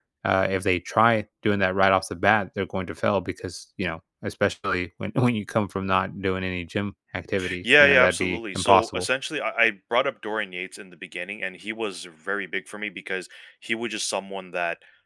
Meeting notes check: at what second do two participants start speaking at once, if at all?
7.4 s

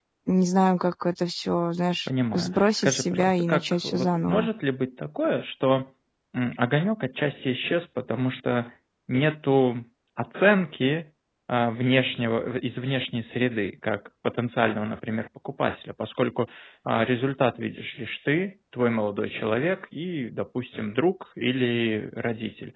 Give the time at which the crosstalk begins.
2.3 s

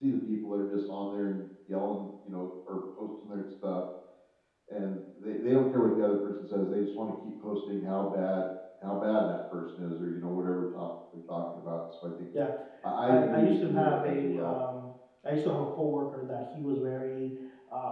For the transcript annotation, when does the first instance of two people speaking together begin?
13.0 s

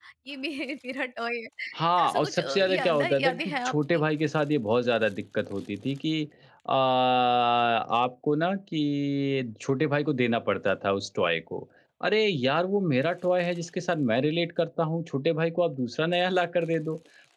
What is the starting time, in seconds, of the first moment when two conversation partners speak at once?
2.0 s

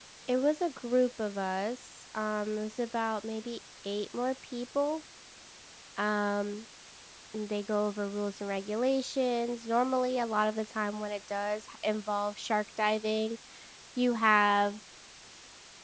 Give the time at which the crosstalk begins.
none

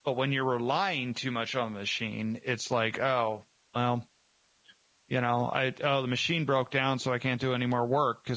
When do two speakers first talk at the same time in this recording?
none

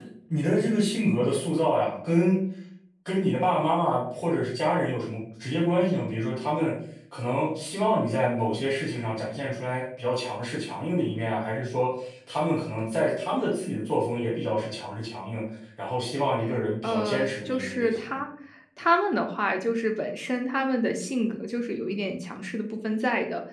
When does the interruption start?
16.8 s

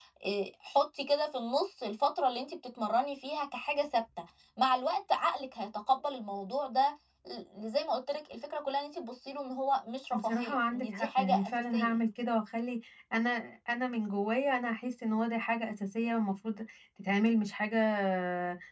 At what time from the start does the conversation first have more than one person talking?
10.1 s

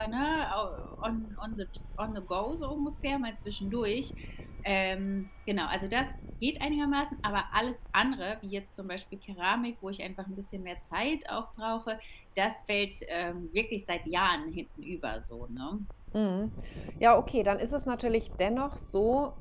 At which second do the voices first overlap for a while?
none

